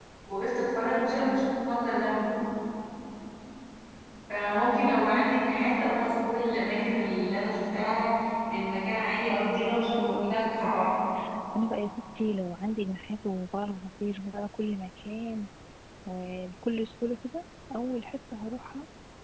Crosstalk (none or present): present